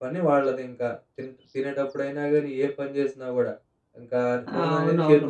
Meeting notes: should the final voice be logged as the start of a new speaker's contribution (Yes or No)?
No